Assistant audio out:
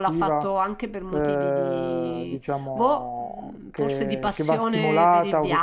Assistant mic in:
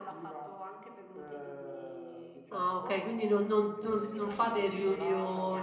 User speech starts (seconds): 2 s

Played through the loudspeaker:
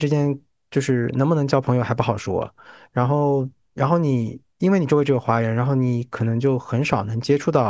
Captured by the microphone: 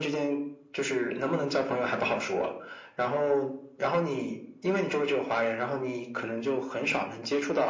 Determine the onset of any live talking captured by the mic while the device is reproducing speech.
none

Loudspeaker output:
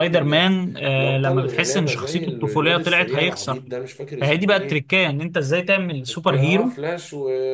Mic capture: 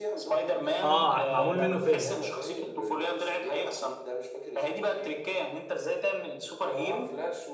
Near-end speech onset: 1 s

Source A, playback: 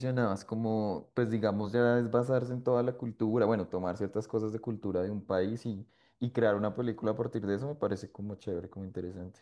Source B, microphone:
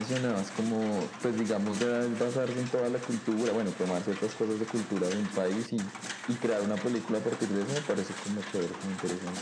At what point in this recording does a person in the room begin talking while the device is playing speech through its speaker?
none

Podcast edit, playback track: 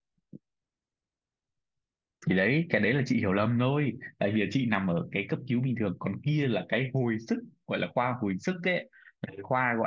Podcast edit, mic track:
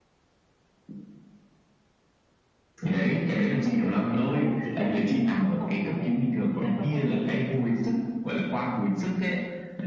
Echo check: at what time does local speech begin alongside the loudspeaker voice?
4 s

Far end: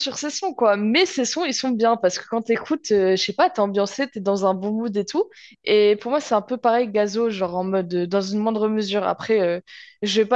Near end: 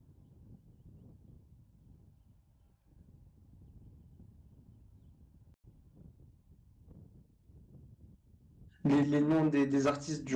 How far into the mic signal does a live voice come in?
9 s

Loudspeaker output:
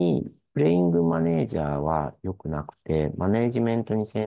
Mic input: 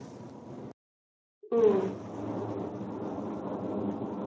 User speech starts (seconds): 2 s

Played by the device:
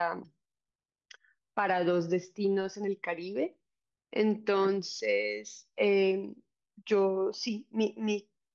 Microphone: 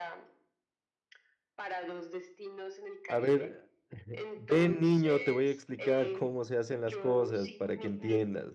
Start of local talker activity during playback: 3 s

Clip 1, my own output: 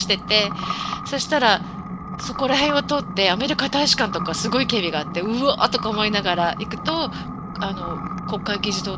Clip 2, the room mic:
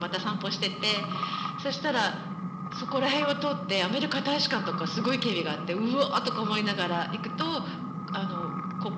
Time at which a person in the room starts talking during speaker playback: none

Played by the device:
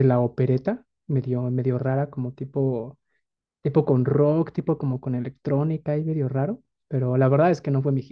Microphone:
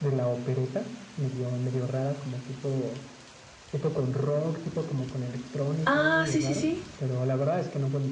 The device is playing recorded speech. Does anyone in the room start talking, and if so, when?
6 s

